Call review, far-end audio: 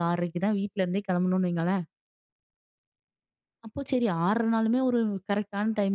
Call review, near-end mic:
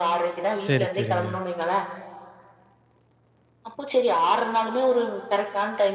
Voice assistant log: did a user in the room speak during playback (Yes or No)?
Yes